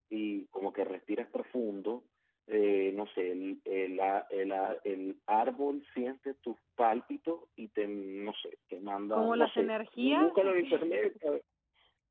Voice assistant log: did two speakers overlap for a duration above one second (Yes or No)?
Yes